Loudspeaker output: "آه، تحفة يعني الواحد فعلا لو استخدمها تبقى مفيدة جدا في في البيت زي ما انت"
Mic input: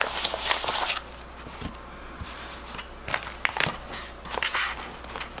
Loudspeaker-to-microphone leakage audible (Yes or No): No